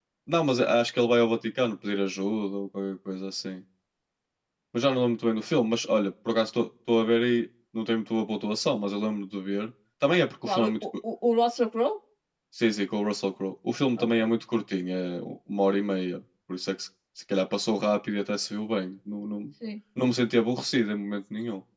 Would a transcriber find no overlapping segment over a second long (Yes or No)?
Yes